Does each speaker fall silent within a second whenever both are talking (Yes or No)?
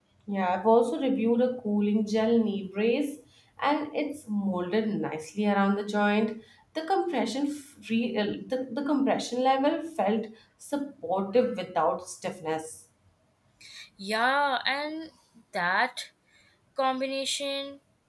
Yes